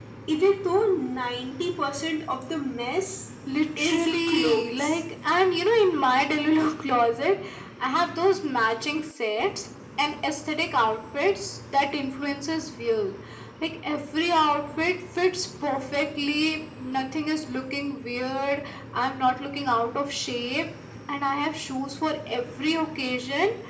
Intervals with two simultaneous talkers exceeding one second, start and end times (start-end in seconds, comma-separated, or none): 3.8-5.0